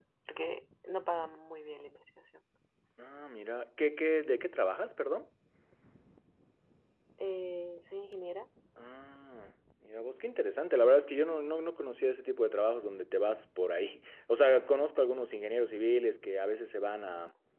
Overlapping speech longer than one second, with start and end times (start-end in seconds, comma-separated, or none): none